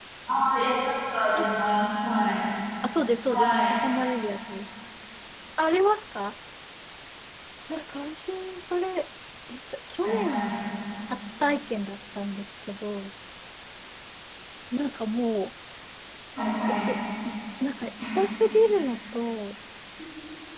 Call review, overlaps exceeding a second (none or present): none